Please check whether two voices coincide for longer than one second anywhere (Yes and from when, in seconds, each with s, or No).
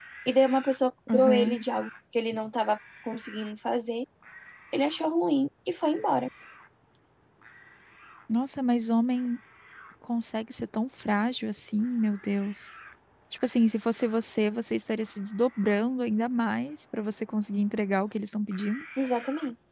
No